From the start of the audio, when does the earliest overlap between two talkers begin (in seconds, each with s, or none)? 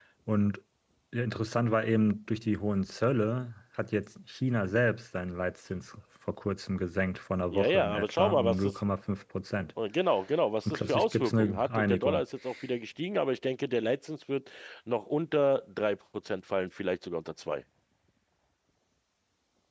7.5 s